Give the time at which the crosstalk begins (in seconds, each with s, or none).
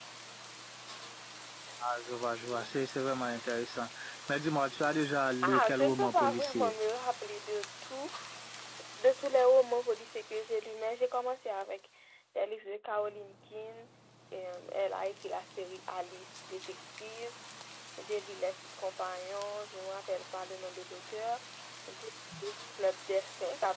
5.4 s